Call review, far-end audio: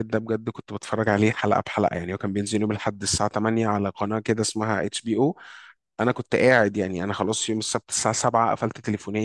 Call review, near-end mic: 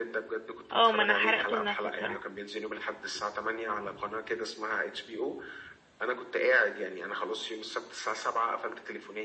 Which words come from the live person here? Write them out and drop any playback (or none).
اه ما انا حرقته لنفسي بصراحة